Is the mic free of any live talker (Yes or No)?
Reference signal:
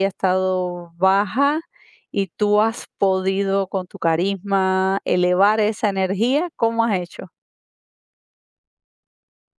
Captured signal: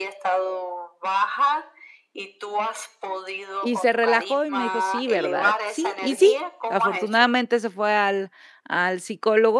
No